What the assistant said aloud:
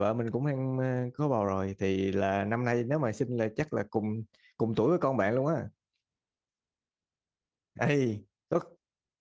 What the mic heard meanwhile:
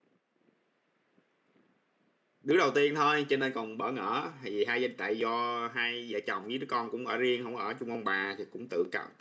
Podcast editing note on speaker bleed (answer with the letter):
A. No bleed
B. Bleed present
A